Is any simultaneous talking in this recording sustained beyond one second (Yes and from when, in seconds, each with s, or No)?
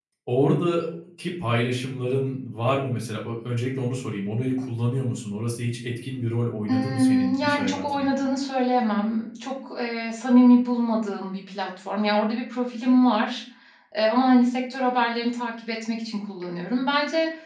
Yes, from 6.7 s